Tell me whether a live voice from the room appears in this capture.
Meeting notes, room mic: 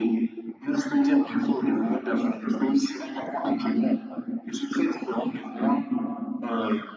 No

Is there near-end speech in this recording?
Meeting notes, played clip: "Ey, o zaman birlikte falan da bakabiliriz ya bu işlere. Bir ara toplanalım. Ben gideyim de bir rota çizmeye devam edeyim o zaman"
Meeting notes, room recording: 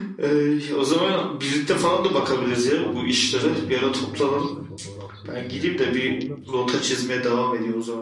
Yes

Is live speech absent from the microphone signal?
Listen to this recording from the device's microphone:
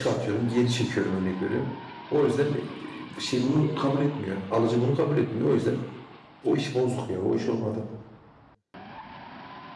Yes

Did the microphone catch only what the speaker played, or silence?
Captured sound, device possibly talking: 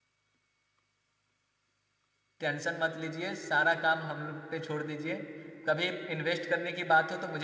No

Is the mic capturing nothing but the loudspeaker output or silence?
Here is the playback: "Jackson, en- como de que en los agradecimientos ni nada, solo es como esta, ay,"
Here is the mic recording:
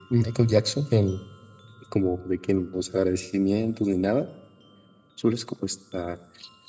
Yes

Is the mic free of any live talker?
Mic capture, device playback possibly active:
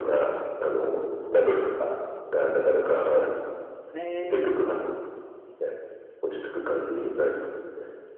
No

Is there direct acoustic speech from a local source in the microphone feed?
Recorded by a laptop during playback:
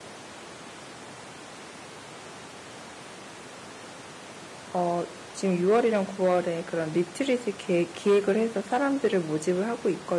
Yes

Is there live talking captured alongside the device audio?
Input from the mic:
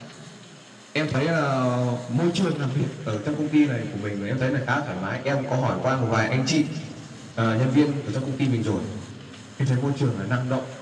No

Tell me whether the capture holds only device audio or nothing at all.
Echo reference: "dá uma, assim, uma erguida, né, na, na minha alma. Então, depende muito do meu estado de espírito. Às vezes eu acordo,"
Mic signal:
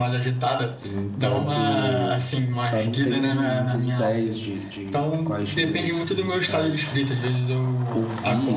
No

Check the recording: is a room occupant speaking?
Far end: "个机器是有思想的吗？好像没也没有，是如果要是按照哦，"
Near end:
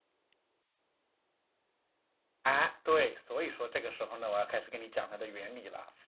Yes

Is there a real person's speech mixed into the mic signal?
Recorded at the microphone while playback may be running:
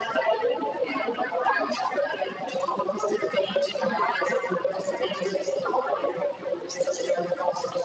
No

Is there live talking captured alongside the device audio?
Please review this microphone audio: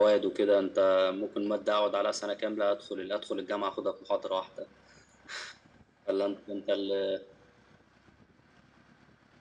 No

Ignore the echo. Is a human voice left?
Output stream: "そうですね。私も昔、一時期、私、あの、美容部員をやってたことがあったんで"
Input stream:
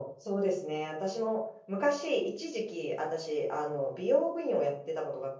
No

